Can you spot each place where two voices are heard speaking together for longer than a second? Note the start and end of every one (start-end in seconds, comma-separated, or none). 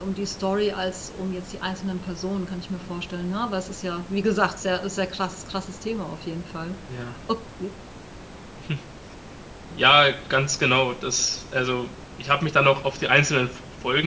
none